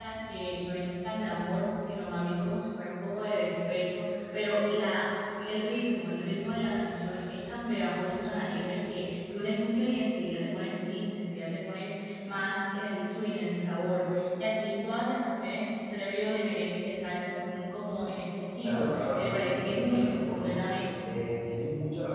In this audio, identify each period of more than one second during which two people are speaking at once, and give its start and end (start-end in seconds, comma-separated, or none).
18.6-20.6